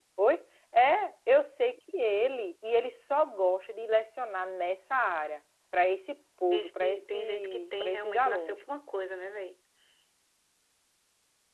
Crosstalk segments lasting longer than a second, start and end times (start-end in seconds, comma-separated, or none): 6.5-8.6